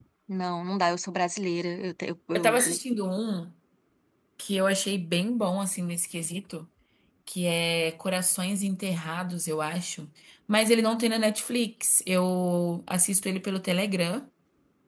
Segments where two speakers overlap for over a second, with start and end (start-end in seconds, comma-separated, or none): none